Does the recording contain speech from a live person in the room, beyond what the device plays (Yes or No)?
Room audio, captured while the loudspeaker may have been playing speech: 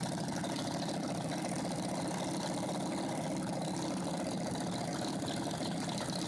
No